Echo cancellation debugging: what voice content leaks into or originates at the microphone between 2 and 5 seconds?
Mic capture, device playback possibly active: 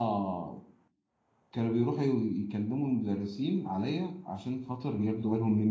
user only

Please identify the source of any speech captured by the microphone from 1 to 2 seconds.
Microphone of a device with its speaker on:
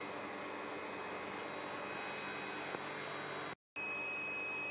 neither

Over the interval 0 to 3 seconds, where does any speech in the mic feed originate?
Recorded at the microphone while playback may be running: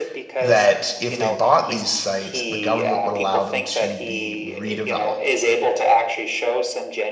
both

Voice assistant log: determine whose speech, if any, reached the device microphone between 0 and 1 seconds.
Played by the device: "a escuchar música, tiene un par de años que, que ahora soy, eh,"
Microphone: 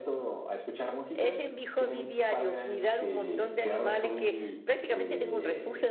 echo only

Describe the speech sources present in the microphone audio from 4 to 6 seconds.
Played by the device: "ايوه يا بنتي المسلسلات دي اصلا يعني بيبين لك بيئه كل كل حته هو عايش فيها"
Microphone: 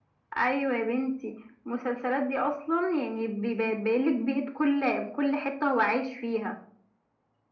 echo only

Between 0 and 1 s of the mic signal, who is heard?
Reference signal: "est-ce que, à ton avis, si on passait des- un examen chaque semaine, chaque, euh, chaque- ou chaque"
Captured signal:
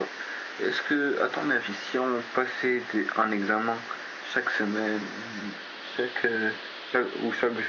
echo only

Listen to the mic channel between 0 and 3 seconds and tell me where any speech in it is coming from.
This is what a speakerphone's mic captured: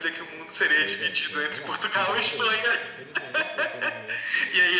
both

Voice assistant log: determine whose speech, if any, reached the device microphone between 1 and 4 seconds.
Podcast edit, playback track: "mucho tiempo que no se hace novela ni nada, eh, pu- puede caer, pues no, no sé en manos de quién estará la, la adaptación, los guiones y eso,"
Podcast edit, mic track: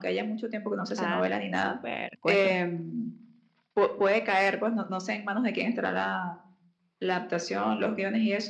both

